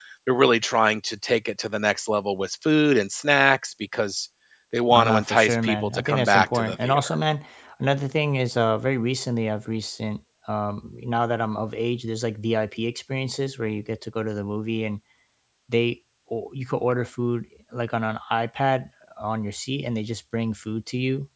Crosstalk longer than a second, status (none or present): present